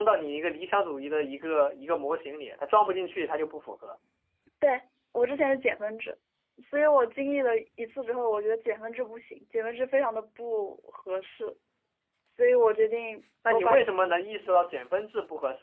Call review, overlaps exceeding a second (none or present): present